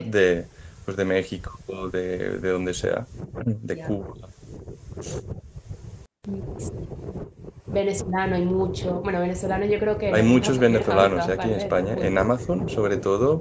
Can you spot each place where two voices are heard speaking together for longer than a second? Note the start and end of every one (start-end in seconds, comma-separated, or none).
10.1-12.2